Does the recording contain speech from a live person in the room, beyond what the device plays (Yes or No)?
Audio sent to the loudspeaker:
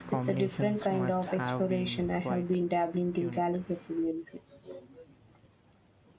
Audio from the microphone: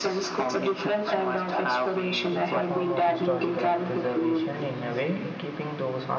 Yes